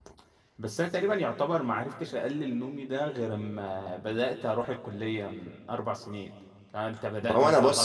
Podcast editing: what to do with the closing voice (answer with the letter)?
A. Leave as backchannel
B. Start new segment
B